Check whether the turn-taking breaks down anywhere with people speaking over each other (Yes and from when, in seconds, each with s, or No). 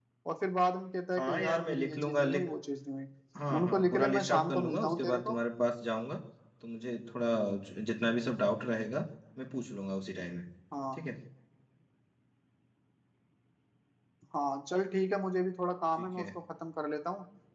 Yes, from 1.2 s